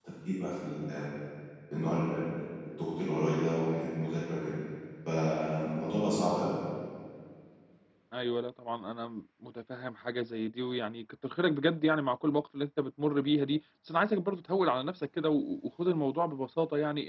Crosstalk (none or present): none